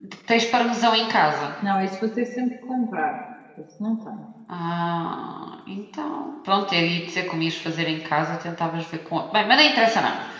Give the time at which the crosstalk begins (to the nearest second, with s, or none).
none